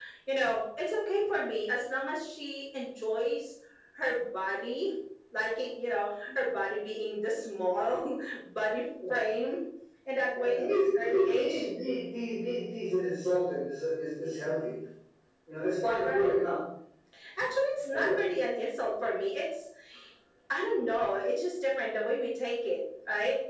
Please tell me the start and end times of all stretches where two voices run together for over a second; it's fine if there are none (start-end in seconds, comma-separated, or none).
10.3-11.6